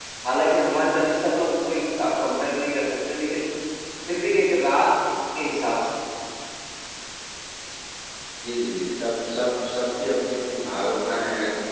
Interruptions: none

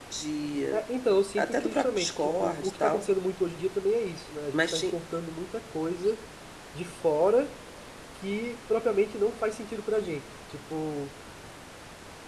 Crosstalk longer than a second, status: present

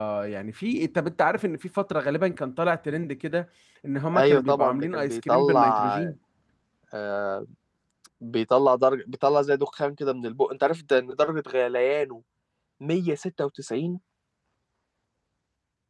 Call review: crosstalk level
present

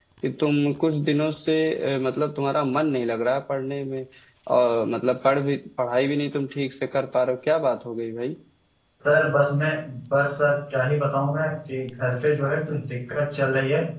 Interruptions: none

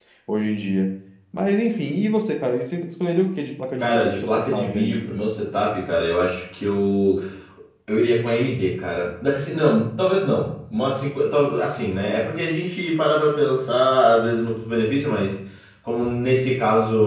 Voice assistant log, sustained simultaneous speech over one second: present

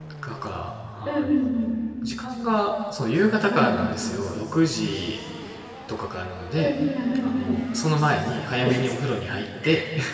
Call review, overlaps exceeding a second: none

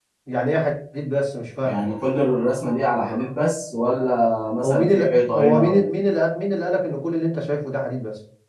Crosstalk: present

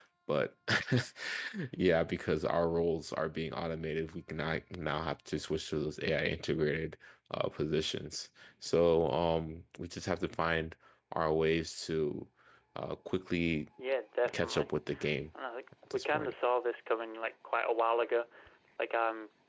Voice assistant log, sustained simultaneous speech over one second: none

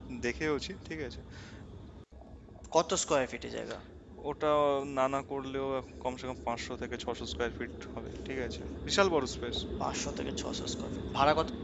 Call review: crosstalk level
none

